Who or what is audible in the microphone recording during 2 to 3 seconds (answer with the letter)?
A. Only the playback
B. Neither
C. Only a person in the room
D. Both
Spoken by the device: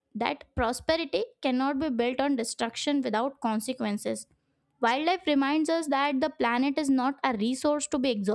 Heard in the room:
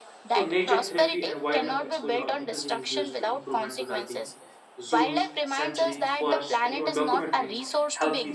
D